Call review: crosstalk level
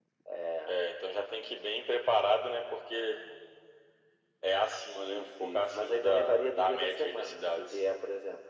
present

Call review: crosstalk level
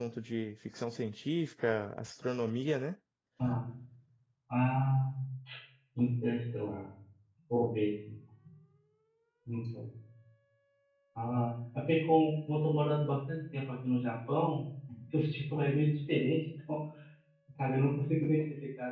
none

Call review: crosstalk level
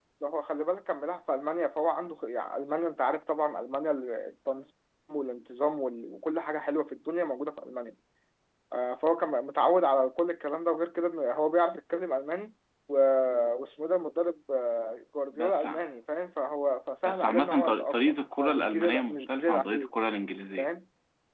present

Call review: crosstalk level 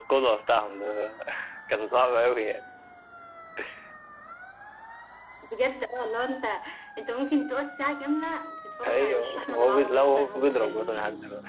present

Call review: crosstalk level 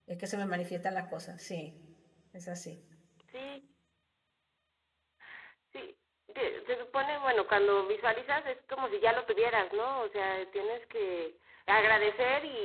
none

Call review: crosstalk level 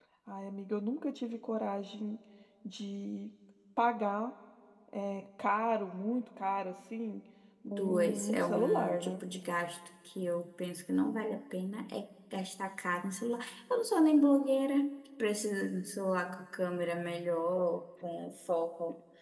present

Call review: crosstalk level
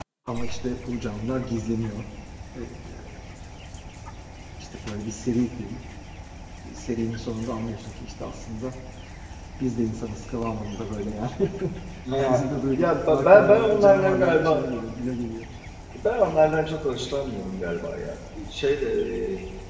present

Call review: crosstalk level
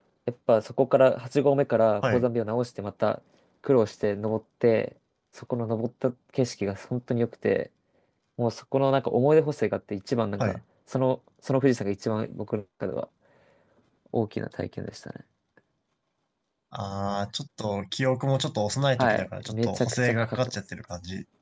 present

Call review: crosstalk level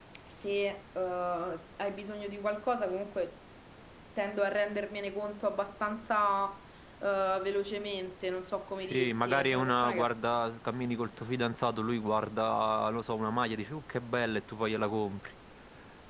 present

